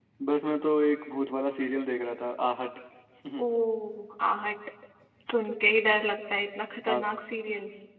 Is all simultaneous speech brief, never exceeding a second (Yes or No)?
Yes